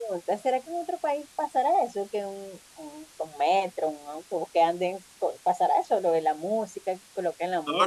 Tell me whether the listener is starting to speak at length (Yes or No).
Yes